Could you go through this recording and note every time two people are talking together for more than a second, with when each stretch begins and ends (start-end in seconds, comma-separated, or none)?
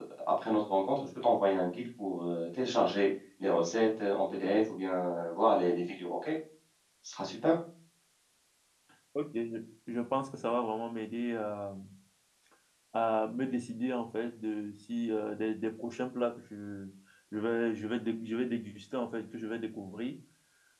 none